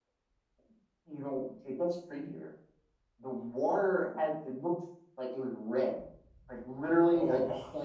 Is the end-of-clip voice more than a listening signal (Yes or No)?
No